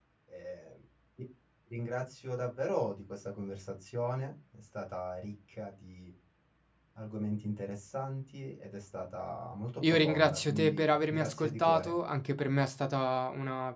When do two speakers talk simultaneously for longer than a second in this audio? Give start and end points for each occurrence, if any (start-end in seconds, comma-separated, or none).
9.8-11.9